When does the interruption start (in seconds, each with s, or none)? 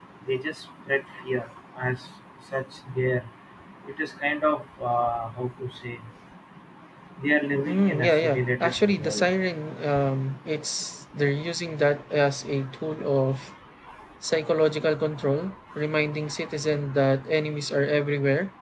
7.7 s